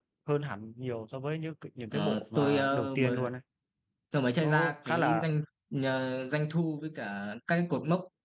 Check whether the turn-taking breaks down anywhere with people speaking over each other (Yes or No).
Yes